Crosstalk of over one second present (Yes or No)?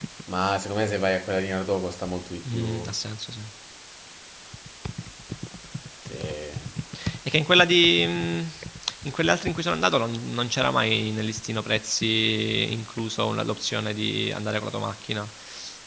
No